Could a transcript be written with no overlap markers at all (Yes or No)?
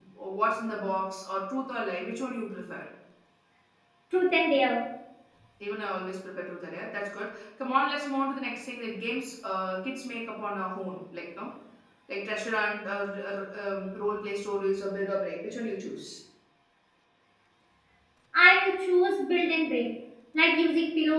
Yes